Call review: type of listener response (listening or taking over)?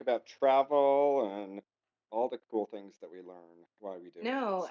taking over